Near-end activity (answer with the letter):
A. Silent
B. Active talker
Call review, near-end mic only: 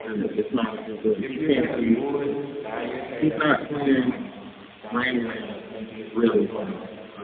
B